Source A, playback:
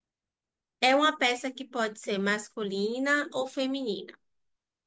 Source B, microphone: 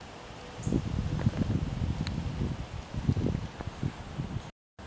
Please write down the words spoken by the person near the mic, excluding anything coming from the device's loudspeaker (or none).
none